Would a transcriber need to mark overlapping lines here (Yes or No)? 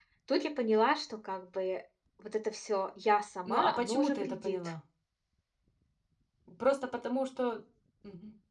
Yes